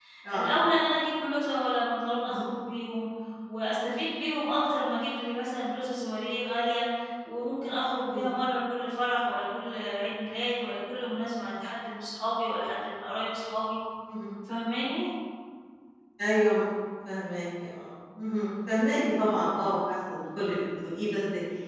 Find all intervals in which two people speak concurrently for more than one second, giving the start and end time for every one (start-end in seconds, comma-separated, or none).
none